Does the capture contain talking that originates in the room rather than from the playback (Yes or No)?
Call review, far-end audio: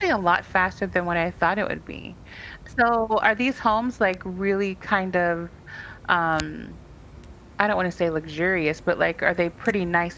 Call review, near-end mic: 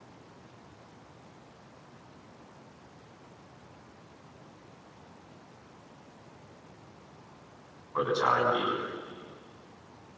Yes